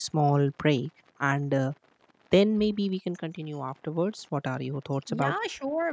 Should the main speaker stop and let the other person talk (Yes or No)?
Yes